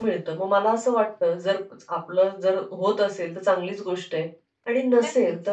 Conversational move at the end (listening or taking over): listening